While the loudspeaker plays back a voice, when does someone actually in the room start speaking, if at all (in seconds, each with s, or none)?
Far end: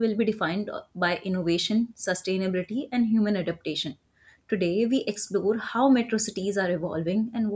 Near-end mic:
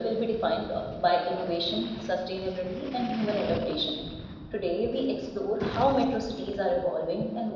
none